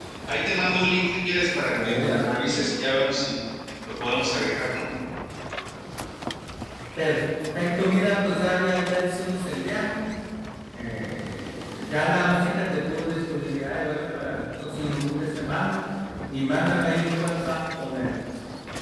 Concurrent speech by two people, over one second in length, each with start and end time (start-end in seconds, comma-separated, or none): none